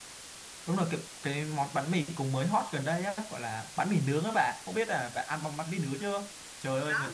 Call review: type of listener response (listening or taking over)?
listening